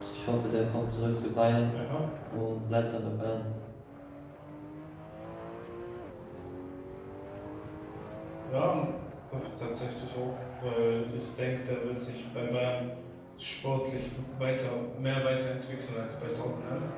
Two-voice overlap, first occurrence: none

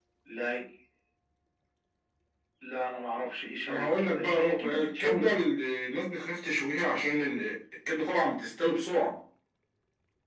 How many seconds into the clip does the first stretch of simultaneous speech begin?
4 s

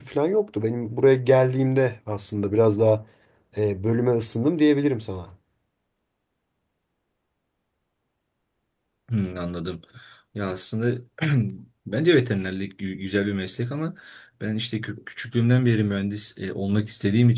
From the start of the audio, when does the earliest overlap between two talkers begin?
none

